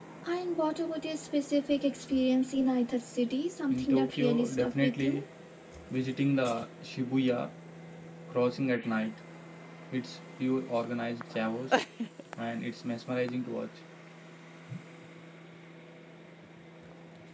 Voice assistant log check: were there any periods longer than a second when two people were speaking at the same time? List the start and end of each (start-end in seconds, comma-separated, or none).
3.7-5.2